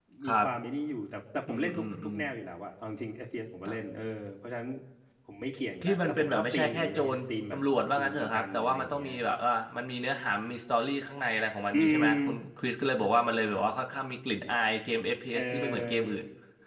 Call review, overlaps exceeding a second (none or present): present